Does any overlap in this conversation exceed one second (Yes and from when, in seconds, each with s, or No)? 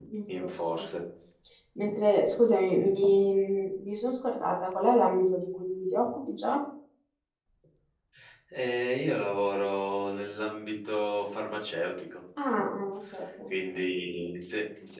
No